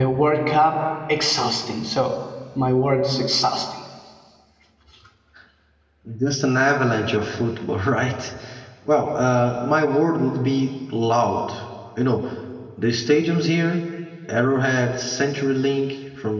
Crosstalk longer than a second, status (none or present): none